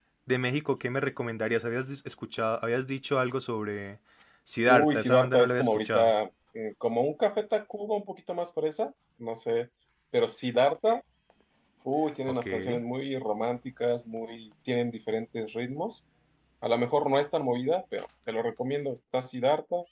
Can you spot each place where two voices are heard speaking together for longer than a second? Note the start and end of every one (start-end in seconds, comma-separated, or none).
4.7-6.1